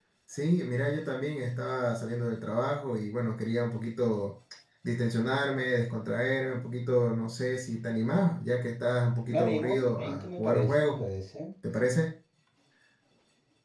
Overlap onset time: 9.3 s

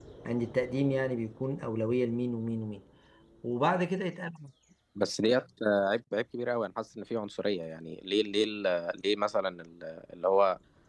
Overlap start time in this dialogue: none

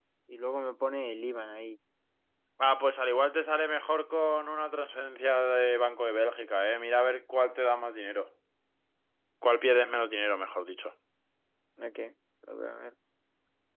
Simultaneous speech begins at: none

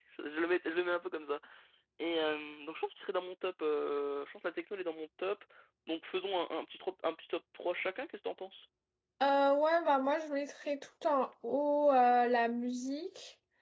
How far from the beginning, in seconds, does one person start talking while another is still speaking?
none

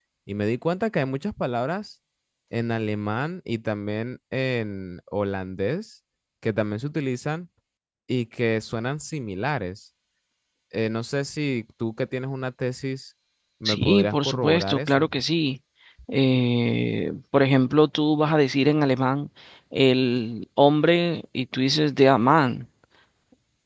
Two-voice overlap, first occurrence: 13.7 s

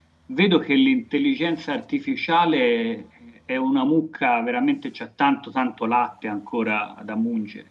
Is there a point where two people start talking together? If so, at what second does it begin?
none

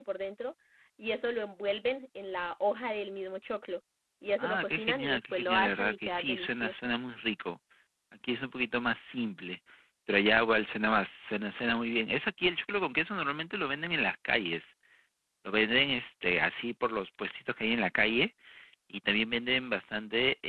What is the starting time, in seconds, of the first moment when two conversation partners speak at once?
4.4 s

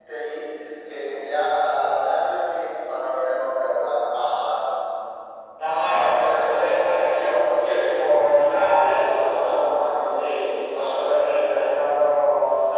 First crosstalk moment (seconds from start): none

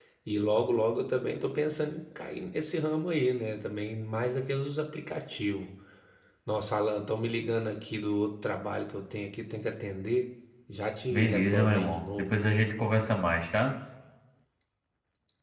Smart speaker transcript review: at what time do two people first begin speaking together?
11.1 s

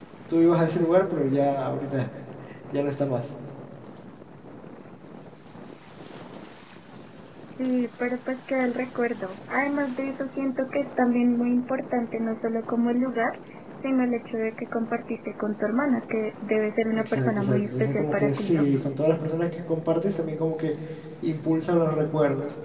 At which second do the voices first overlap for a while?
16.9 s

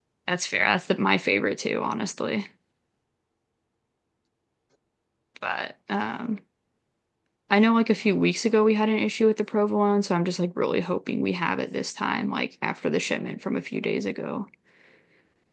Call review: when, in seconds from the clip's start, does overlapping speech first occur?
none

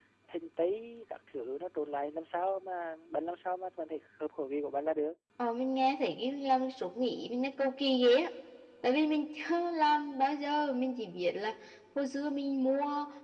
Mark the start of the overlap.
none

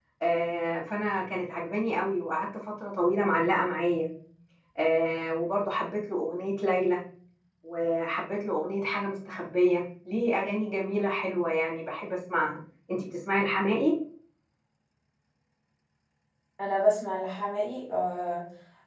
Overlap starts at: none

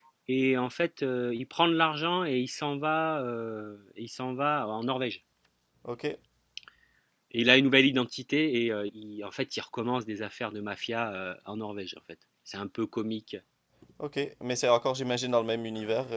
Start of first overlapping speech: none

